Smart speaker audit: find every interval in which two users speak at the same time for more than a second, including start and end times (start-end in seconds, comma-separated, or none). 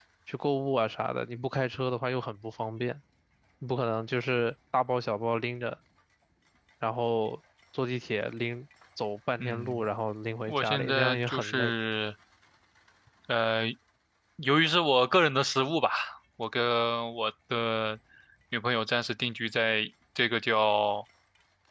10.5-11.7